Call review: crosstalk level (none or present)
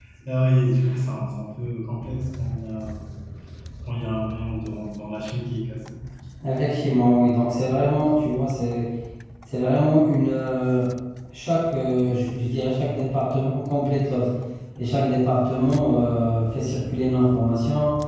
none